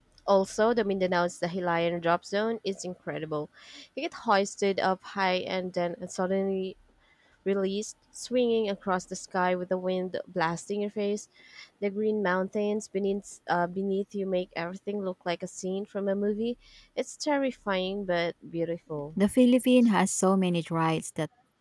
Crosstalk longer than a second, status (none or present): none